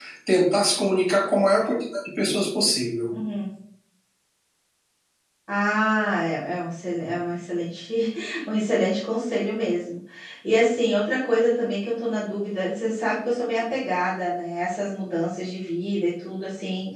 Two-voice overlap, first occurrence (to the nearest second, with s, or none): none